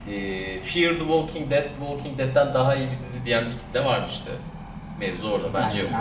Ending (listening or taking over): taking over